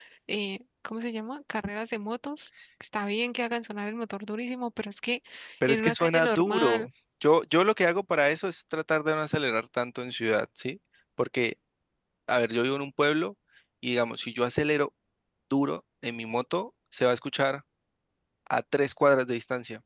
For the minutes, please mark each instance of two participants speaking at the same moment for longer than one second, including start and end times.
5.7-6.9

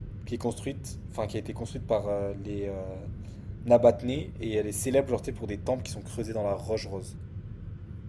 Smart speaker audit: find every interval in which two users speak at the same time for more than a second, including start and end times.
none

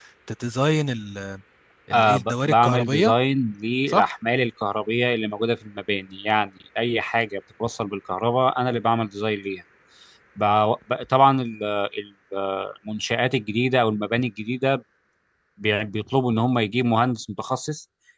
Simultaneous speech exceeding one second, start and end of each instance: 1.9-3.1

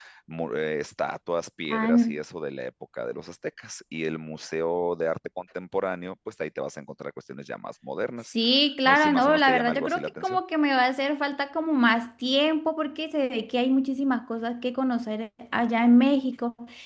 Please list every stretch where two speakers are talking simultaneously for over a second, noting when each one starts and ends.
8.8-10.4

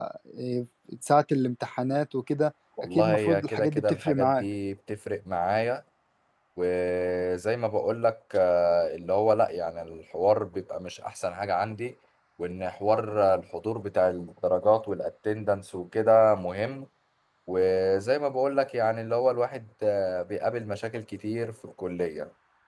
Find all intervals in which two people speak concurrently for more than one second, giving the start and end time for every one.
3.0-4.4

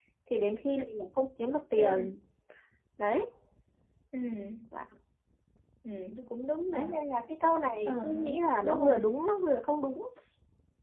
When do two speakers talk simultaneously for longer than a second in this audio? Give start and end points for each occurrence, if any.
7.8-9.1

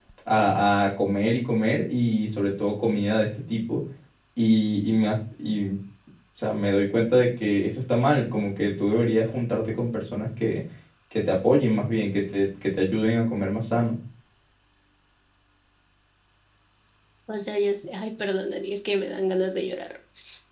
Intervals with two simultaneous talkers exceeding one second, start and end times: none

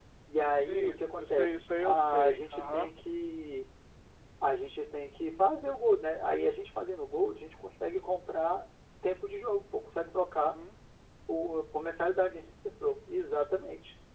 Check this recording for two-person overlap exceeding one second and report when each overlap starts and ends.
0.5-2.9

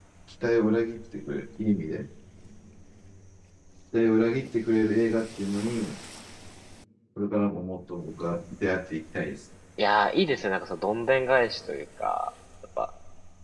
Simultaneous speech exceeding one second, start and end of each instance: none

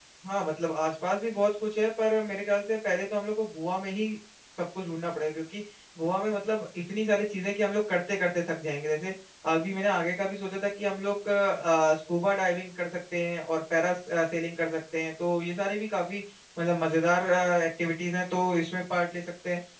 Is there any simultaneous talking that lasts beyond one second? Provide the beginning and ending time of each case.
none

